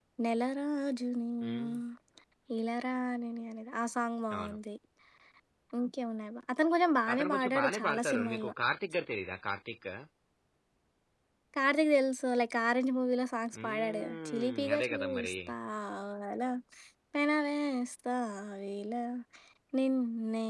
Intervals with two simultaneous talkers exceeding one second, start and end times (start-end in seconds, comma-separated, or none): 7.1-8.5, 13.5-15.3